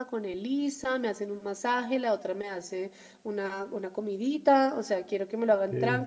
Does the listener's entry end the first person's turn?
No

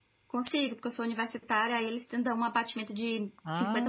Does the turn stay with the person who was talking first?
No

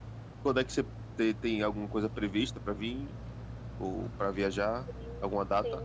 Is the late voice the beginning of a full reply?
Yes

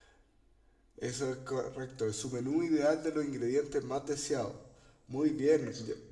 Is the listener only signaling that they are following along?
Yes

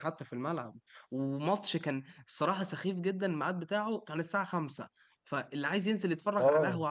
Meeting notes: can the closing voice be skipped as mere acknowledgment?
Yes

